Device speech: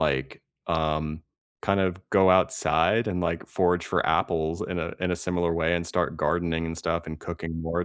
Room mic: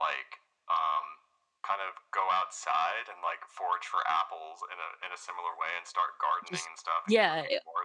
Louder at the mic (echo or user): user